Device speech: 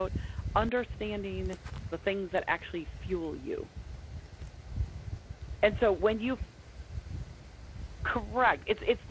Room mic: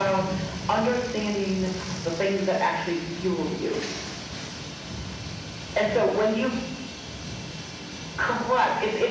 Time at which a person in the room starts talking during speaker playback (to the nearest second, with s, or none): none